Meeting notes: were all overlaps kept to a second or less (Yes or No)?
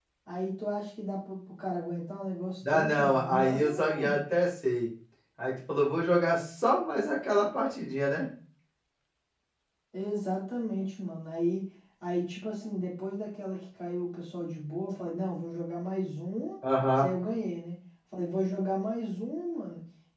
No